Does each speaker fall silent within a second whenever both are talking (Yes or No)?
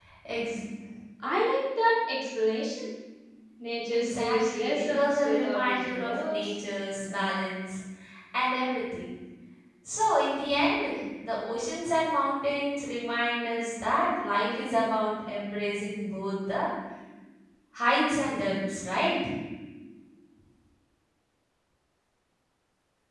No